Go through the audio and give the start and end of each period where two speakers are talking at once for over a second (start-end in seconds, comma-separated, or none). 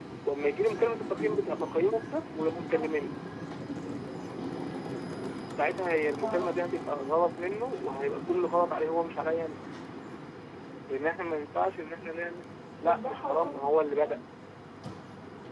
12.8-14.2